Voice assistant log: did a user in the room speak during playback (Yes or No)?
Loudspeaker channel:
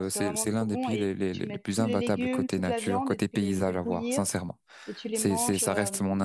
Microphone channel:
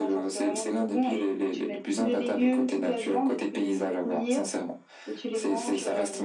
No